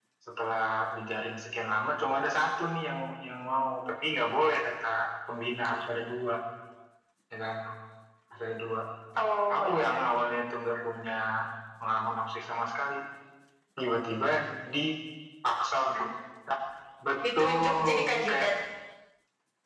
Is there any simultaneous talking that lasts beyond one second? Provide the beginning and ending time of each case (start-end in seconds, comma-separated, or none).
17.2-18.5